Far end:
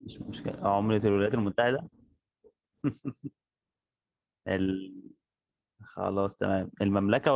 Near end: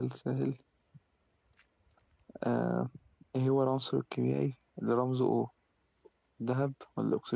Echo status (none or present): none